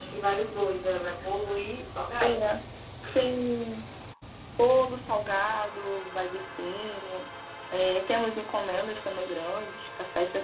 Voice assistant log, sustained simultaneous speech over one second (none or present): none